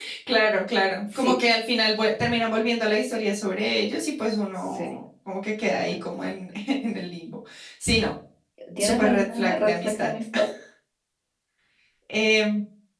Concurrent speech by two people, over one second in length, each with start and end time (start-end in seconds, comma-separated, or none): 8.8-10.1